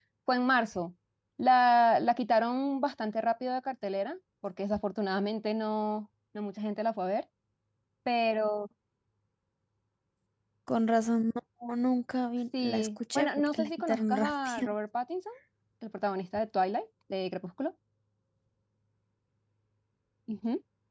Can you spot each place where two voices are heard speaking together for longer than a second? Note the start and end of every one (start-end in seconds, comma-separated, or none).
12.6-14.7